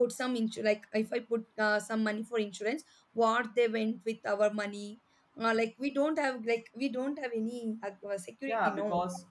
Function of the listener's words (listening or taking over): taking over